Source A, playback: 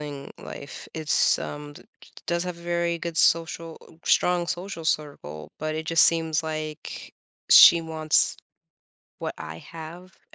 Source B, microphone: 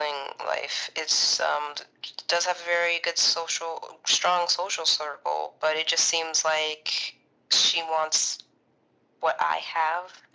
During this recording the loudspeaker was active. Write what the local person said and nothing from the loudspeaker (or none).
none